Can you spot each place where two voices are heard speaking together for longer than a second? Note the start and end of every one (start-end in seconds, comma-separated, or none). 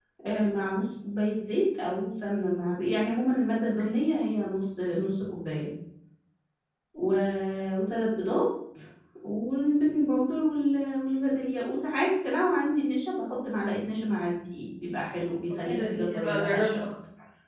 15.5-16.9